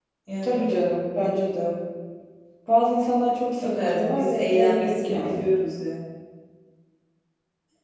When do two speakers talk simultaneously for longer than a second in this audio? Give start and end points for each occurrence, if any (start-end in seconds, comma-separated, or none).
3.6-5.5